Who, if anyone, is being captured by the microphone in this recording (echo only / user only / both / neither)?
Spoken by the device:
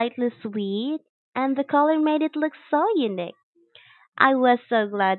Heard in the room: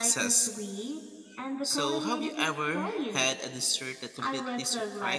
both